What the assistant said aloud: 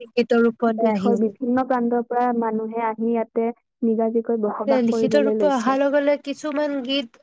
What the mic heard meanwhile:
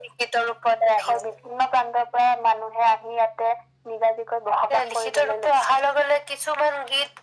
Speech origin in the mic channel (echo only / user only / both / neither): echo only